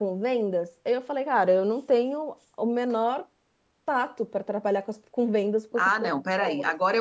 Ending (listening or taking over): taking over